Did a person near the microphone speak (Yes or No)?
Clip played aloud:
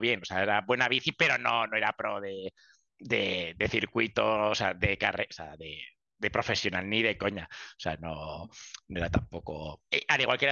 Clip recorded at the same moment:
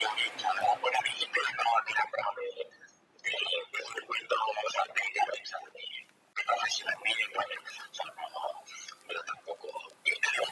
No